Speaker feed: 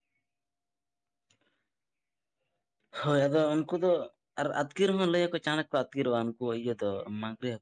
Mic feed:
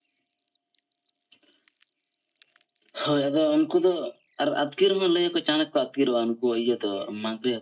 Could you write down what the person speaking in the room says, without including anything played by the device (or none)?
none